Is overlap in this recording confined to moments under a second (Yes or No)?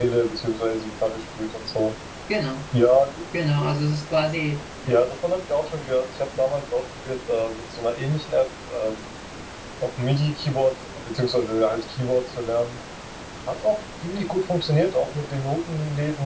Yes